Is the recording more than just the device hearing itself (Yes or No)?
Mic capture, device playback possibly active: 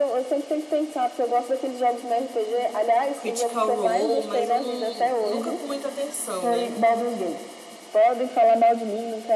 Yes